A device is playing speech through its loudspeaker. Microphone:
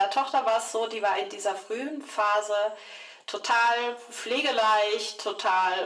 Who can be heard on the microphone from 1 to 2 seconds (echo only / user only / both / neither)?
echo only